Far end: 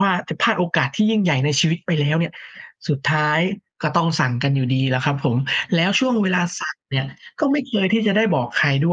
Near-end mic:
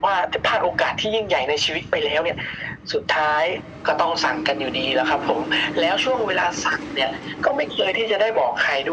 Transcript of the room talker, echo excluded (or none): none